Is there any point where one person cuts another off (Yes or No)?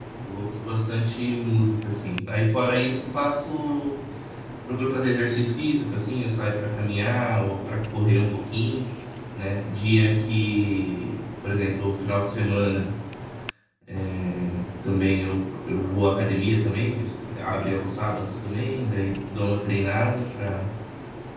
No